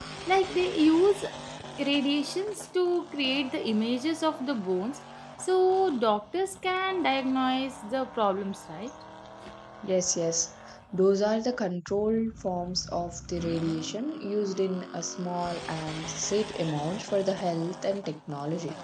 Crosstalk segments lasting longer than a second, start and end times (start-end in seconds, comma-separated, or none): none